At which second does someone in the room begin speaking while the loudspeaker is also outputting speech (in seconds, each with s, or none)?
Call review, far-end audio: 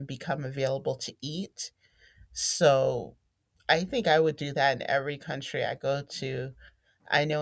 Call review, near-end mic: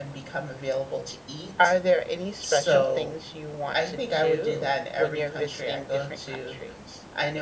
1.6 s